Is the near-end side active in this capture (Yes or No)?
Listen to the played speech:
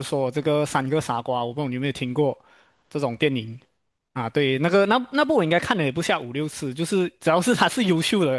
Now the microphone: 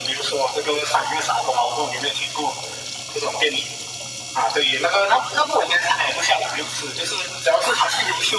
No